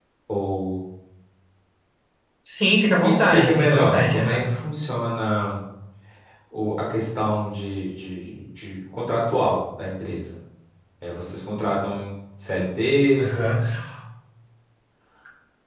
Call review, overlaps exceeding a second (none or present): present